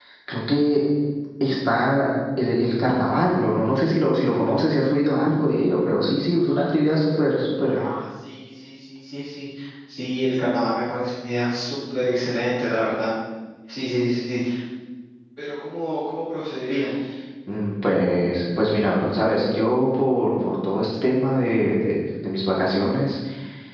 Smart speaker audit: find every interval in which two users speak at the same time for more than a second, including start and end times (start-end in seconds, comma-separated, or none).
none